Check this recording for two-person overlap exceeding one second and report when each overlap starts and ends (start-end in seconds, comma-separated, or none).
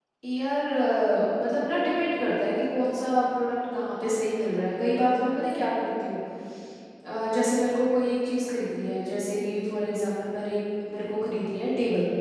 none